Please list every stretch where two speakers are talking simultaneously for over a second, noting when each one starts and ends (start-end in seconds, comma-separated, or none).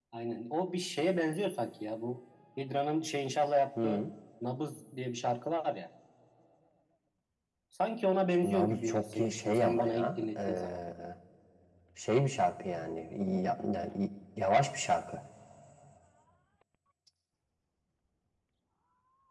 8.4-10.6